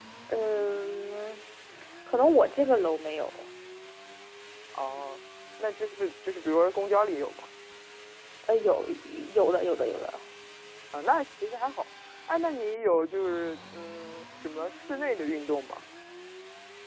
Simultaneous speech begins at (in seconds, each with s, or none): none